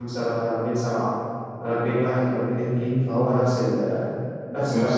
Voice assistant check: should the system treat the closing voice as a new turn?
Yes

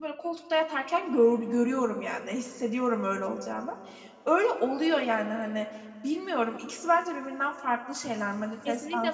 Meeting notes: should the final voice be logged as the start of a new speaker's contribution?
Yes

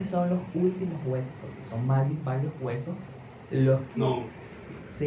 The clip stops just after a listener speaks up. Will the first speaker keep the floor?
Yes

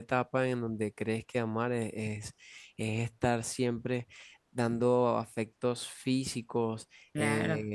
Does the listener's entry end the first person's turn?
No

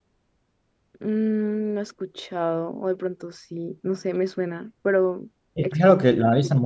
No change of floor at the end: No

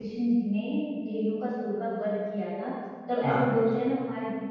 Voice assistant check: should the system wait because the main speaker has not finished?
Yes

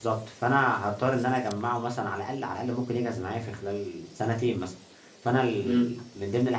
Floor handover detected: No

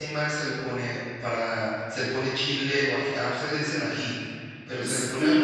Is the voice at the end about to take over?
Yes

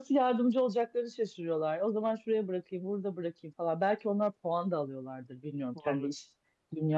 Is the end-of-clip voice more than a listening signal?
No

